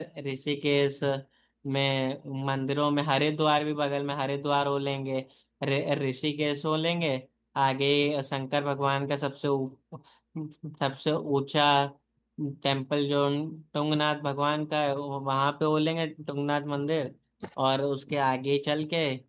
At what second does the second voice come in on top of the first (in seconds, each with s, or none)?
none